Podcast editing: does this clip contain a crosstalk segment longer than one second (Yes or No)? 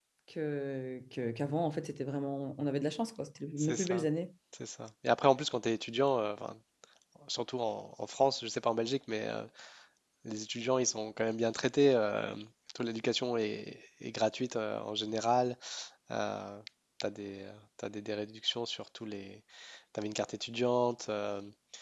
No